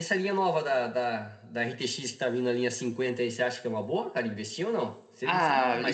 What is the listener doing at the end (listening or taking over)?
taking over